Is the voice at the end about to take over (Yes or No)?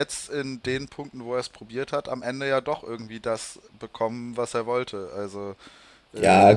Yes